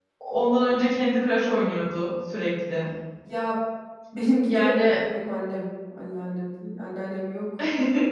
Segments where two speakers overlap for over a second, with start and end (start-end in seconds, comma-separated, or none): none